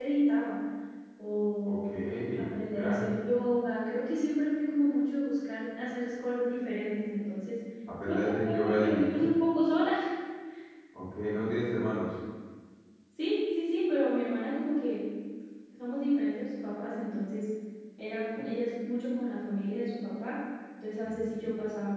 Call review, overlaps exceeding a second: present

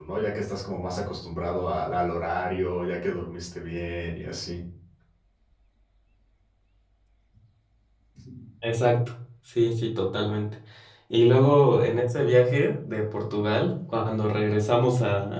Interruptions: none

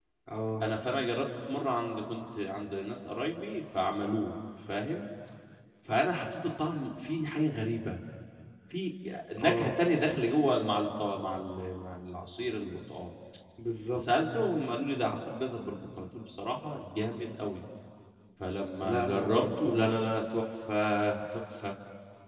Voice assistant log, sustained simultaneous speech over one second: present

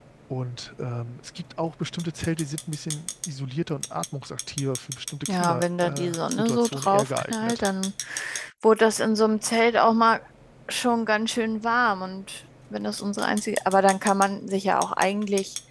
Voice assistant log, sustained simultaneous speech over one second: present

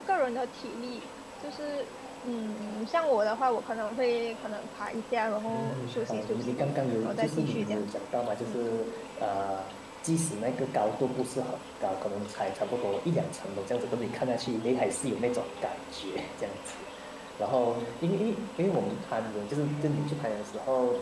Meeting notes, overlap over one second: present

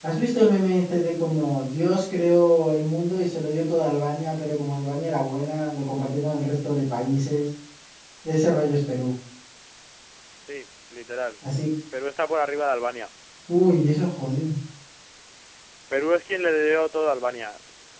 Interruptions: none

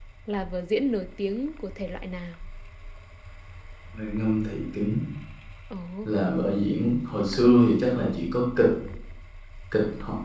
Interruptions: none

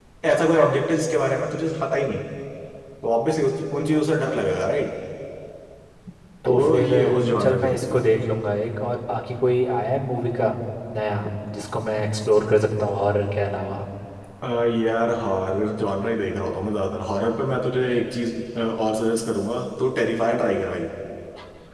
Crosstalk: present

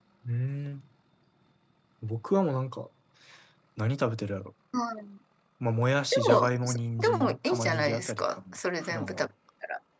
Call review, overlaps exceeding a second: present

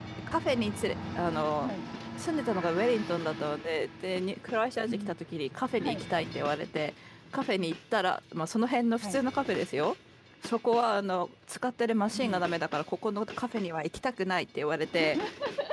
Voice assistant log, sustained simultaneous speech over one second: none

